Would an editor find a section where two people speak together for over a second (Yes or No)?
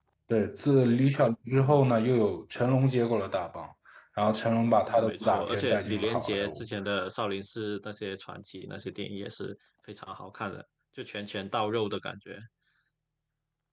Yes